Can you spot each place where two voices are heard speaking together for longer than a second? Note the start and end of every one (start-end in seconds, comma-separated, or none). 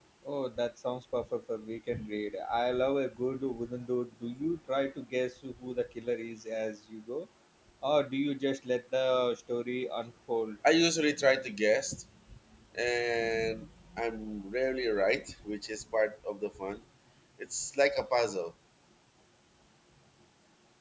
none